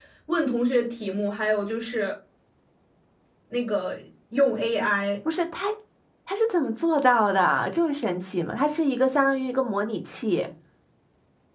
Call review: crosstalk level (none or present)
none